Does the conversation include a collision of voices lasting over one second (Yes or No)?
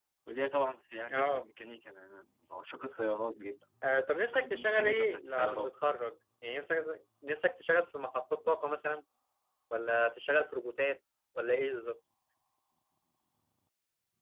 Yes